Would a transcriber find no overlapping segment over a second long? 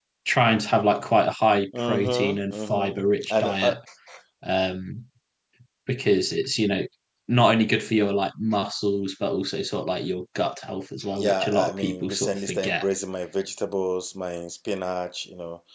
No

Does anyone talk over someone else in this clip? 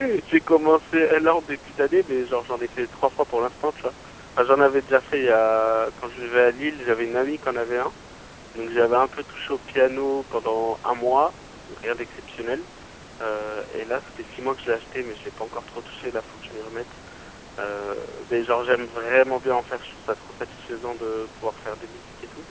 No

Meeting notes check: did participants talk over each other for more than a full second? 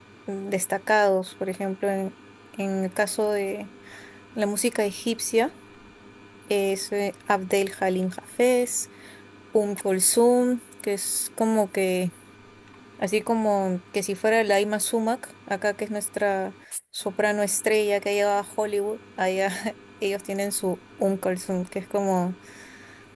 No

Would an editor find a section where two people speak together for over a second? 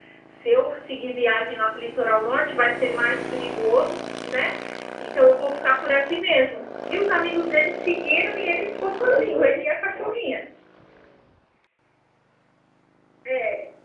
Yes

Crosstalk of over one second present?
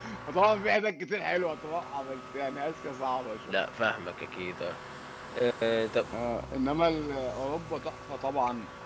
No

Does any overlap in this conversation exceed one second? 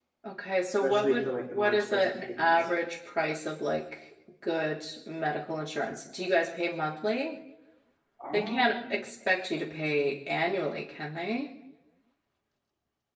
Yes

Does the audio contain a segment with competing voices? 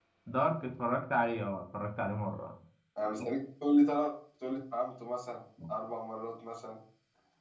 No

